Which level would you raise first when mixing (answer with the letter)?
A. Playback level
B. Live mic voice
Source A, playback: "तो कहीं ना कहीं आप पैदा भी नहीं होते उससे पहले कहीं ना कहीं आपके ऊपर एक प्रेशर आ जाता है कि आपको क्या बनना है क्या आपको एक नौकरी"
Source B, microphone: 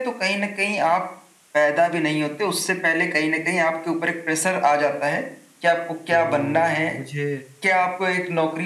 B